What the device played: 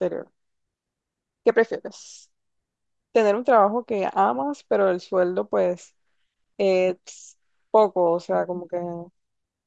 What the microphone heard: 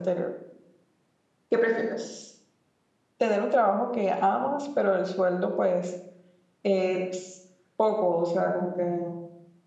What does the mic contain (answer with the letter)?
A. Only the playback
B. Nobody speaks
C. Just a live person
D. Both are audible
A